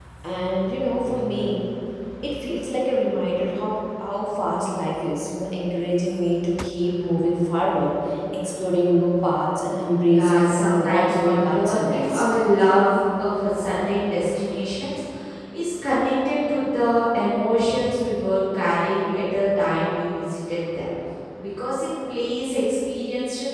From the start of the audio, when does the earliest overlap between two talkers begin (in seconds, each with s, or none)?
10.0 s